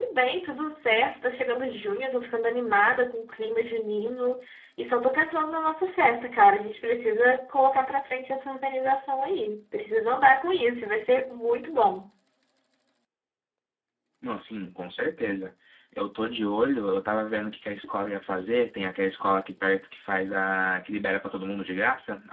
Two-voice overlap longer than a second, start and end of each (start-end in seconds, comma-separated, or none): none